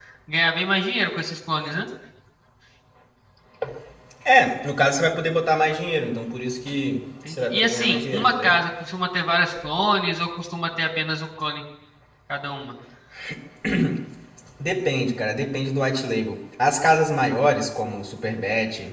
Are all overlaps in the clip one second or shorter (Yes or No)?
No